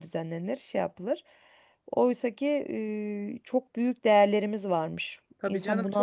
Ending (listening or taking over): taking over